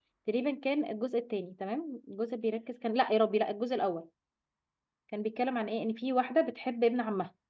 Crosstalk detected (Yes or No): No